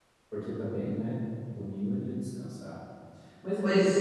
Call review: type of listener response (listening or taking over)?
listening